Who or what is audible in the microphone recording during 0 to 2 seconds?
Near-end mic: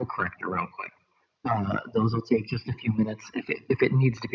echo only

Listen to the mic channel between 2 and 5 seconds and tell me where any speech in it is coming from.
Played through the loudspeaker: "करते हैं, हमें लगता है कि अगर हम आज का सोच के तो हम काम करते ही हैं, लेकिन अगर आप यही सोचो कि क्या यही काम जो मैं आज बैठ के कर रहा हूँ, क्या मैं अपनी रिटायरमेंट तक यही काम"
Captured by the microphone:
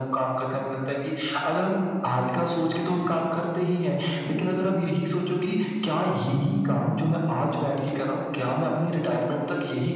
echo only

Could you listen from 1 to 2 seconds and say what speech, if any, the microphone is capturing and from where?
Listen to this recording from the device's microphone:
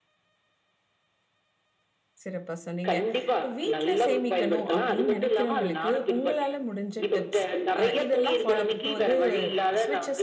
neither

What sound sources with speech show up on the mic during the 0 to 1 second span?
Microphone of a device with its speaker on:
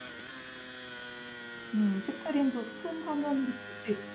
neither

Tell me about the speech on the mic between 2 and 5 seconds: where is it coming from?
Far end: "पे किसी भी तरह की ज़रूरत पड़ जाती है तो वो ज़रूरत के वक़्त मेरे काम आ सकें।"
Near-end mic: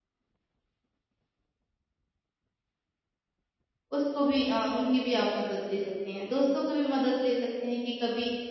user only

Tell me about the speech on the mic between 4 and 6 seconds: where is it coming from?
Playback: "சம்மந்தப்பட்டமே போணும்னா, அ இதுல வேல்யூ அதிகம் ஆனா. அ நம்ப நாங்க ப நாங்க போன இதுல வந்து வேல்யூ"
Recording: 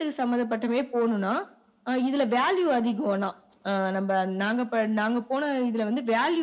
echo only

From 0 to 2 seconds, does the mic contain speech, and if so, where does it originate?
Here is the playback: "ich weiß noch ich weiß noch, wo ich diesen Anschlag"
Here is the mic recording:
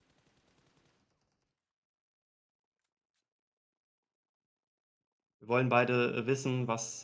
neither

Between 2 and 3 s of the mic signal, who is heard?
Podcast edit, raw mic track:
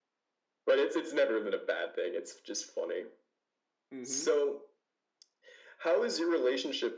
echo only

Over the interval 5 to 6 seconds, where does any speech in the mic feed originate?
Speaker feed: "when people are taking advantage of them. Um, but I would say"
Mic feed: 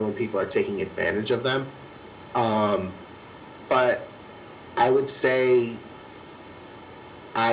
echo only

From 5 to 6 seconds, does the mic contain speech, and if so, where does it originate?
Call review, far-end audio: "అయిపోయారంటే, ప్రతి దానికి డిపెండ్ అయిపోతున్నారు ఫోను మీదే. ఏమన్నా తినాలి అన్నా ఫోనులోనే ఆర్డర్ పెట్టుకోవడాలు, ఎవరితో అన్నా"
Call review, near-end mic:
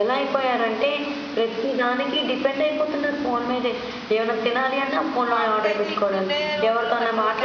both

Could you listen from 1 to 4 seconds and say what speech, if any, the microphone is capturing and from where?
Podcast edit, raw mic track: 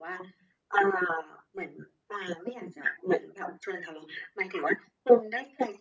echo only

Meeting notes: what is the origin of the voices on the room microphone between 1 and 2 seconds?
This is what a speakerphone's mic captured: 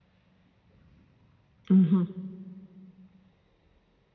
user only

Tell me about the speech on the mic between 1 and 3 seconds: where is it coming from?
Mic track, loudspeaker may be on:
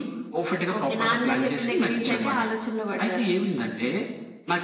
echo only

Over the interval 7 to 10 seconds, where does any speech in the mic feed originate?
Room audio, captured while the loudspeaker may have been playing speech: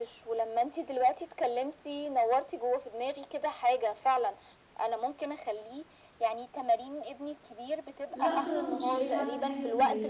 both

